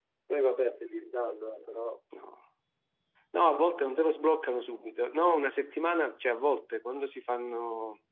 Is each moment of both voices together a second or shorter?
Yes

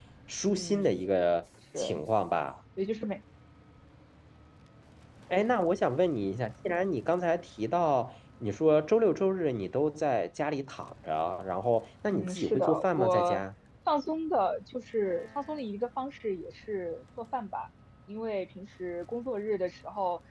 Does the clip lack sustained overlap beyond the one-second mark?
No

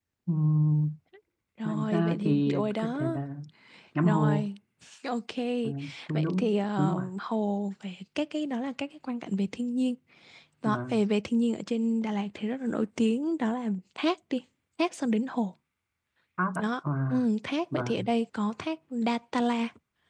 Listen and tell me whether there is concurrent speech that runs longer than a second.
Yes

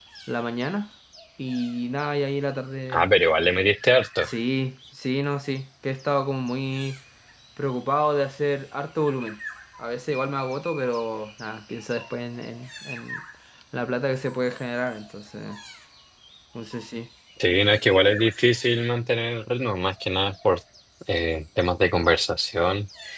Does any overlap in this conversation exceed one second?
No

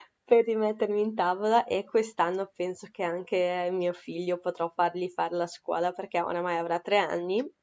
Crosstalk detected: No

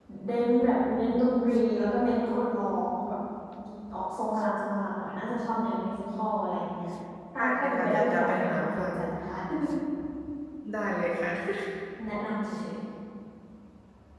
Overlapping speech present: Yes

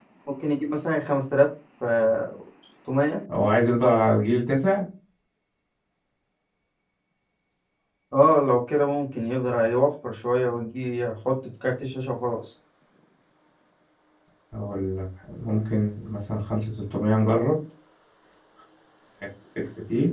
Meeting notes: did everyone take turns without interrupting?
Yes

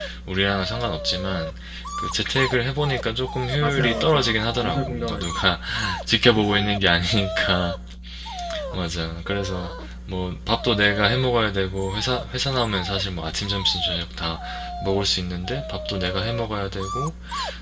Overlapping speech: Yes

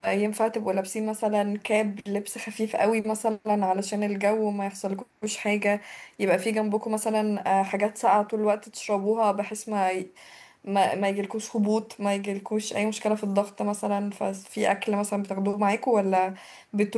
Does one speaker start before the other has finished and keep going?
No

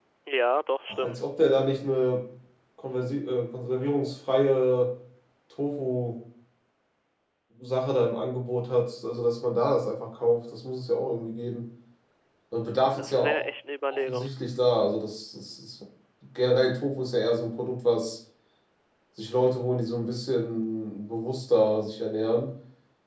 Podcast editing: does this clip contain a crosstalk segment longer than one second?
No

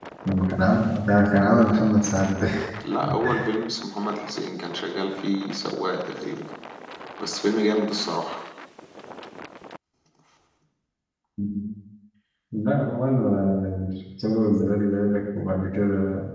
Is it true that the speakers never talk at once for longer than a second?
Yes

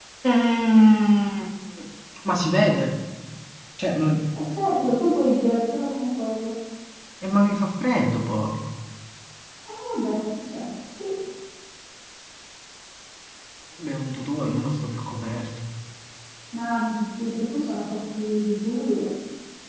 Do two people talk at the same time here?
No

